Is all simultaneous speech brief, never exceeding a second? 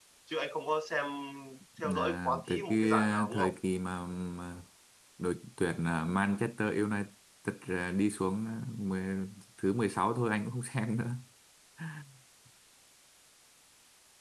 No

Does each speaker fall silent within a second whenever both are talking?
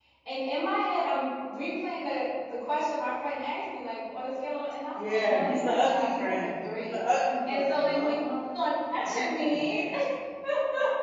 No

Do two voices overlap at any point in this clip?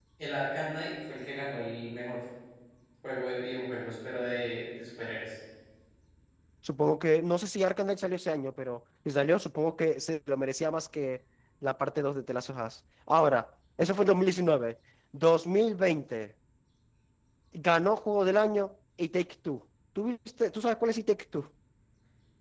No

